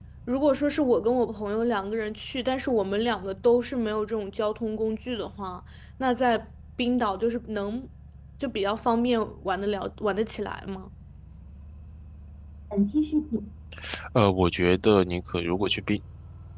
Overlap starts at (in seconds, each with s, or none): none